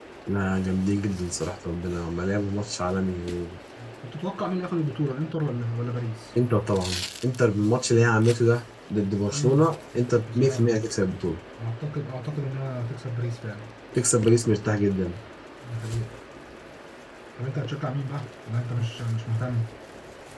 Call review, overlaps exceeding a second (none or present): none